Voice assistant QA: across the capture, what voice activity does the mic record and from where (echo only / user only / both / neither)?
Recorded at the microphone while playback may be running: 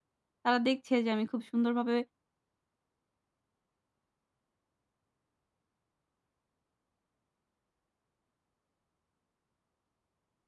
user only